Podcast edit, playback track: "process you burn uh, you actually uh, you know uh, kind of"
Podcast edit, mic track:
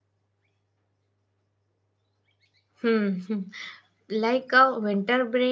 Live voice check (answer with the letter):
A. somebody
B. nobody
A